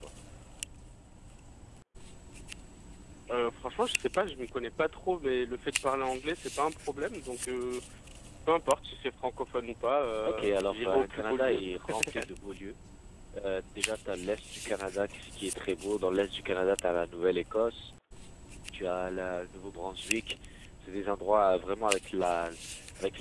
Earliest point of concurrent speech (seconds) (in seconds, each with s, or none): 10.2 s